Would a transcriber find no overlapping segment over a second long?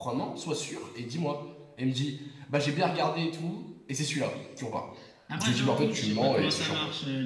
No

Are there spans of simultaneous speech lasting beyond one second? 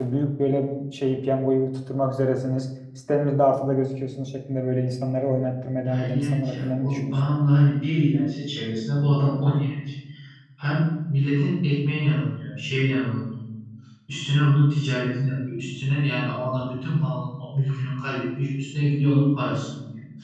Yes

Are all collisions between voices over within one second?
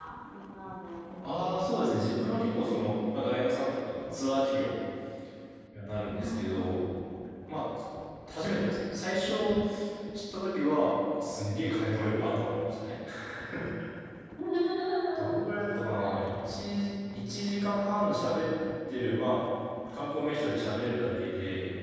Yes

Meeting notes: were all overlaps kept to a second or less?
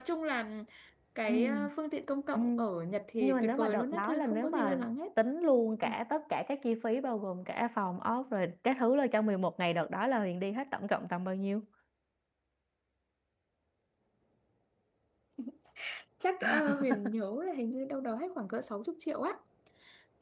No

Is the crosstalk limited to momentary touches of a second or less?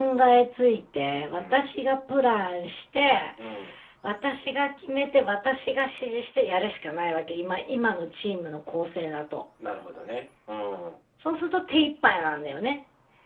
Yes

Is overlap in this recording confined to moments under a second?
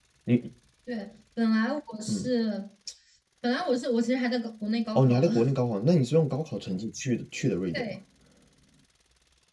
Yes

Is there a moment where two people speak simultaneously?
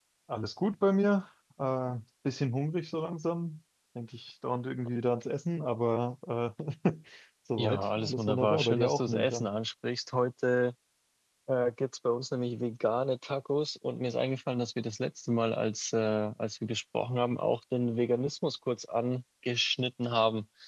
Yes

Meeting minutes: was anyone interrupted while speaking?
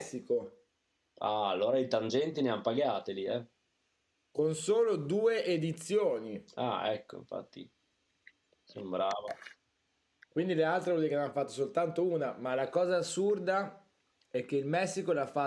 No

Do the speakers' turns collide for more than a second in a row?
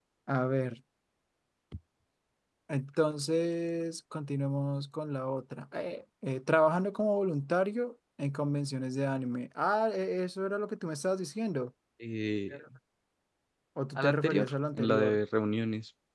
Yes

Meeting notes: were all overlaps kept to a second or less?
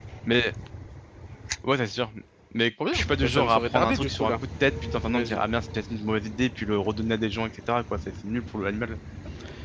No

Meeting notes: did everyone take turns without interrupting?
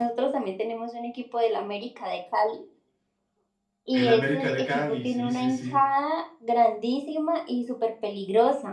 No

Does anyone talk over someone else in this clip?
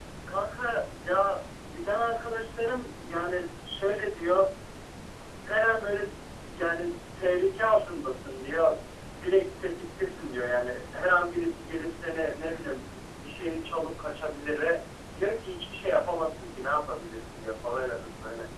No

